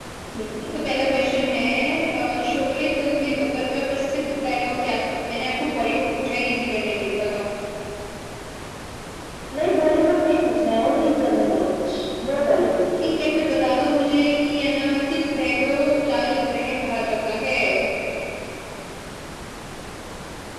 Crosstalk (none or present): none